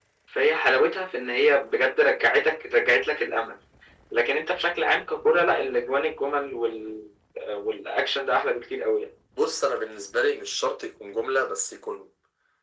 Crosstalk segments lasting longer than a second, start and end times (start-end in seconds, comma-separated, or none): none